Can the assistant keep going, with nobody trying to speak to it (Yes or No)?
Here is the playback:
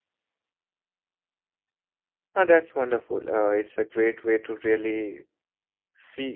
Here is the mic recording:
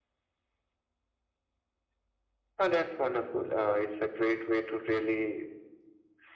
Yes